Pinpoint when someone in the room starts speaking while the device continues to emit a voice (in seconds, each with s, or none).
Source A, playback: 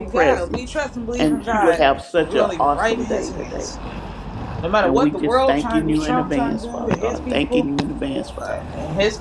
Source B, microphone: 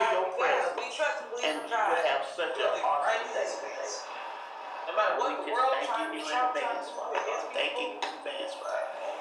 none